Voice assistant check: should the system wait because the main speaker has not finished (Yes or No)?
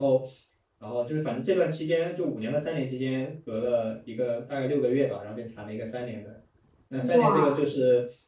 Yes